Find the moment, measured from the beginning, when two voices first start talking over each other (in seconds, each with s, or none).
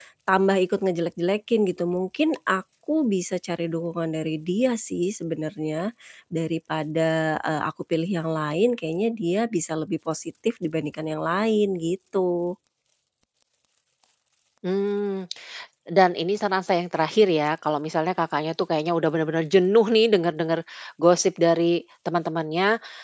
none